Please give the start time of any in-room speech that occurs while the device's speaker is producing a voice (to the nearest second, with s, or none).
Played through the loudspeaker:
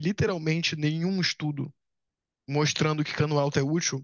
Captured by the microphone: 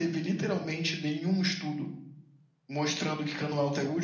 none